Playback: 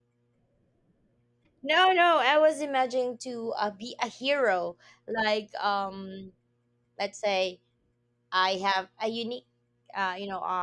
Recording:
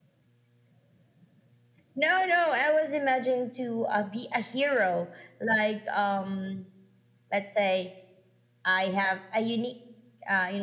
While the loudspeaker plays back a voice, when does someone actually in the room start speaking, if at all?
none

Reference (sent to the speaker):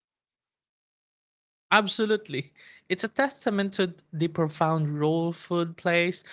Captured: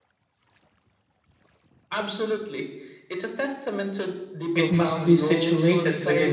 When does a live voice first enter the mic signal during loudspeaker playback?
4.5 s

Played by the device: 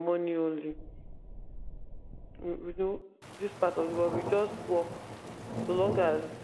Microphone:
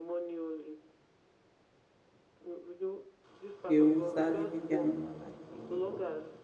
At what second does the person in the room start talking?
3.6 s

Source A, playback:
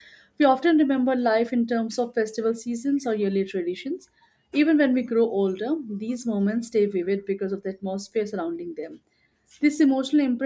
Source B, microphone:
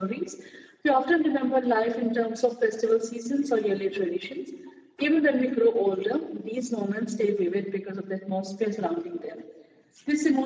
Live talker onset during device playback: none

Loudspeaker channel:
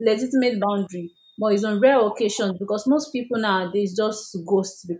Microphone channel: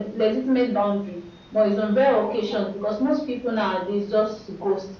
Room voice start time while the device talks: none

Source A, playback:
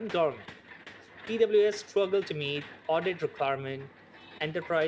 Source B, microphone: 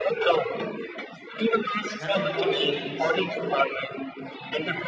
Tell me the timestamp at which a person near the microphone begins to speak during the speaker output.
2.0 s

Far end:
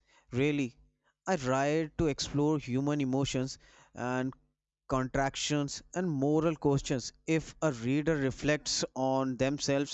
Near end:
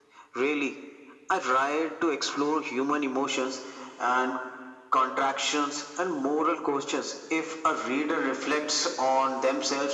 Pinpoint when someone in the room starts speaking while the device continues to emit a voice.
none

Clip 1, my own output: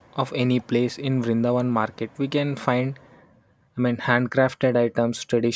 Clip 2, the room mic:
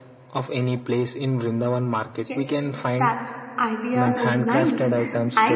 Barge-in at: 2.2 s

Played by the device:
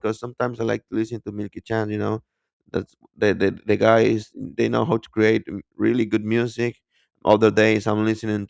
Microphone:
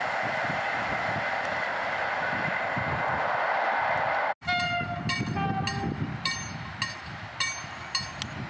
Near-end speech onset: none

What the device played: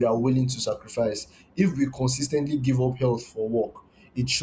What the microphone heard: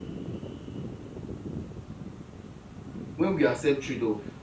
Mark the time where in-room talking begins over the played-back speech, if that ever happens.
3.1 s

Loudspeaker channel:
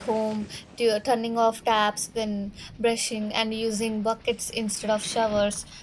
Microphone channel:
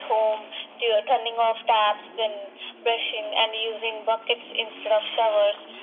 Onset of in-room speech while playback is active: none

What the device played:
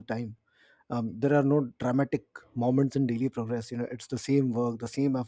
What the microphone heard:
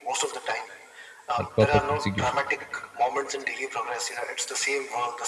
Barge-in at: 1.4 s

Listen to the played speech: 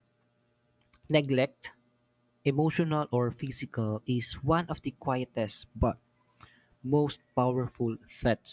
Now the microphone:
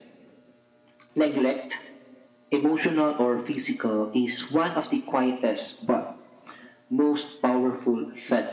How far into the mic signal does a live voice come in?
none

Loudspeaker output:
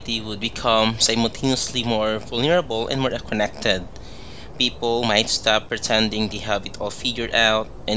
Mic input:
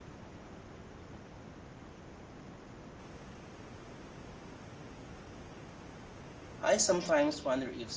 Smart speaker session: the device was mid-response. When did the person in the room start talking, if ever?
6.6 s

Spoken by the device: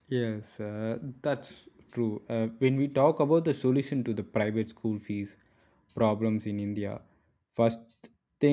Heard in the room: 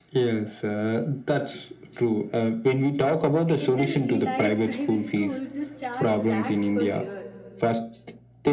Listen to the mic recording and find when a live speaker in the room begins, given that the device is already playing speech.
3.5 s

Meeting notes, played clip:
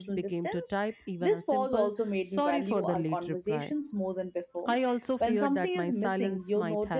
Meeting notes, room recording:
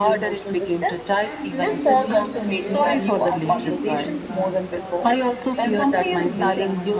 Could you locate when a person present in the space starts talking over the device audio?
1.2 s

